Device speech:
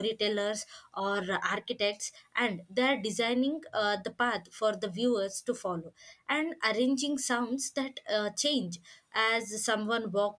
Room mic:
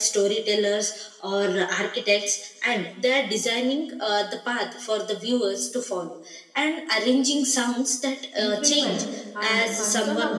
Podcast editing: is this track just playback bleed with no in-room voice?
No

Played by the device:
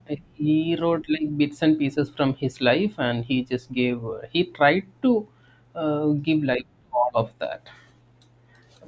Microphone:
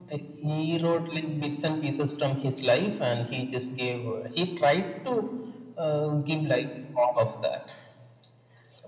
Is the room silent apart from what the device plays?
Yes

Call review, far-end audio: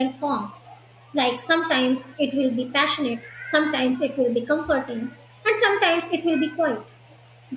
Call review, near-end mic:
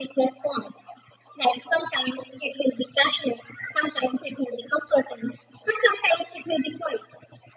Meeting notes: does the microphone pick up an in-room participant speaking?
No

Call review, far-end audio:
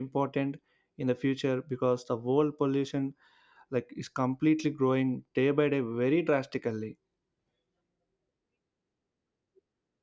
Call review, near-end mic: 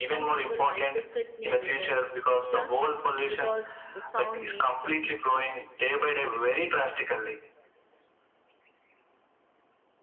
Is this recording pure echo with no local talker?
No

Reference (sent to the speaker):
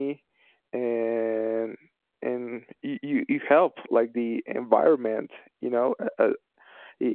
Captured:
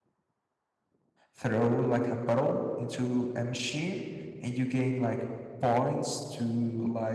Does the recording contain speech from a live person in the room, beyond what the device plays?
Yes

